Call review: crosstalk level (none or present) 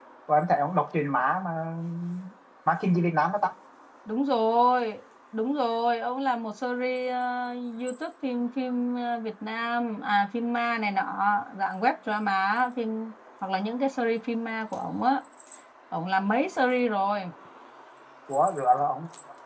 none